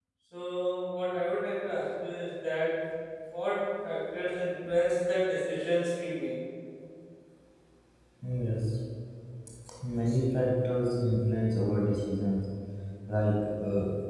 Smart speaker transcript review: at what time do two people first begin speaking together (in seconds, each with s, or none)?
none